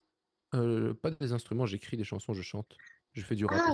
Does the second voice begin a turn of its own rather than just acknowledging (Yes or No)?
Yes